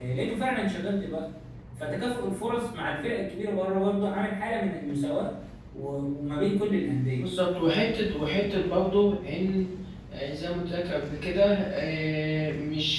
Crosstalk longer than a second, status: none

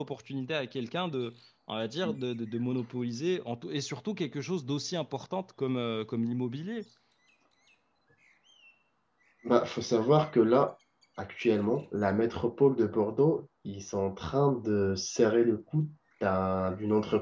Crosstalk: none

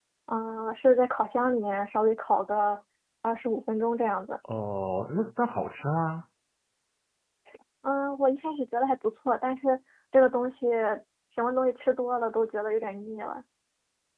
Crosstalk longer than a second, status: none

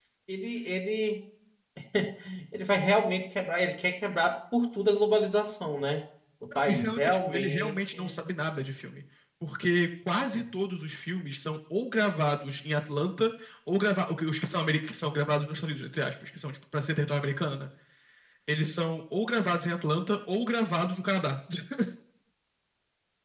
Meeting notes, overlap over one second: present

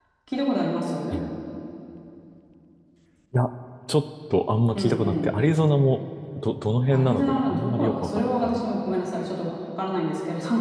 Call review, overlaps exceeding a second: present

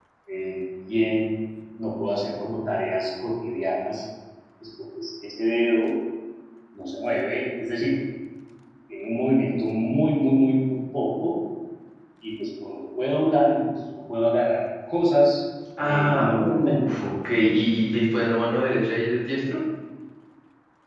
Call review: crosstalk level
present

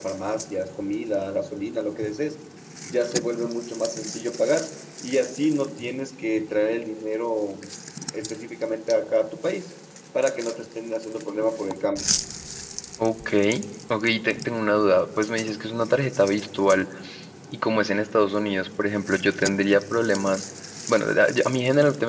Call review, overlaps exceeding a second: none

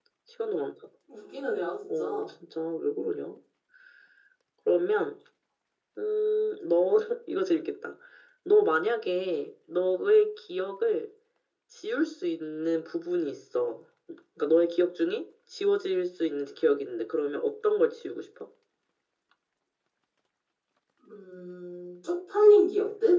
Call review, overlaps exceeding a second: none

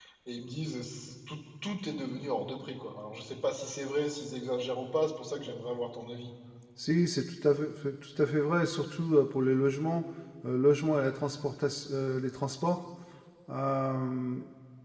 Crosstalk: none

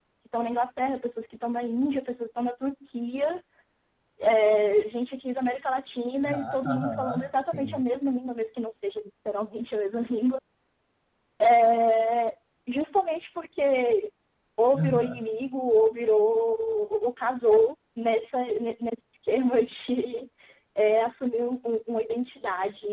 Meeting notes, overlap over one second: present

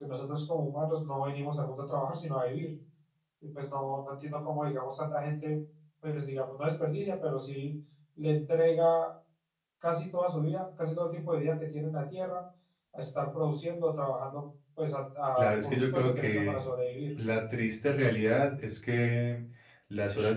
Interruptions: present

